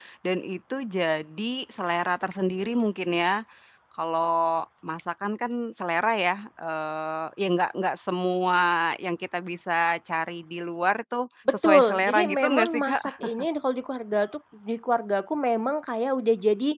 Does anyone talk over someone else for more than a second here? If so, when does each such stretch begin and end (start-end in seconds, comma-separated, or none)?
11.5-13.0